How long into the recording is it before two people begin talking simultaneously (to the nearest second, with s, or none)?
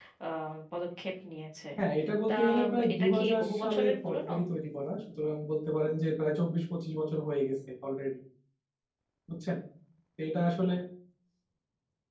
2 s